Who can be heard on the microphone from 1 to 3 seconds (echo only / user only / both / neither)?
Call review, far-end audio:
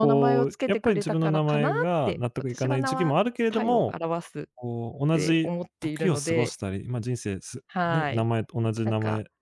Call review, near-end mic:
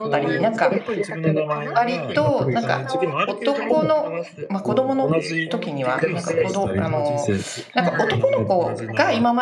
both